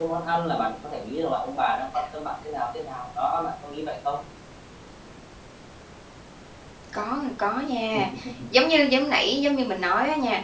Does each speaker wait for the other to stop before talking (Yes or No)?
Yes